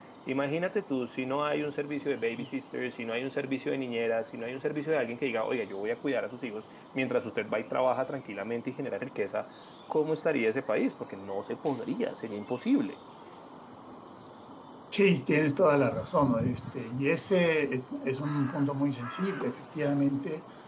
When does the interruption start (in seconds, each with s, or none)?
none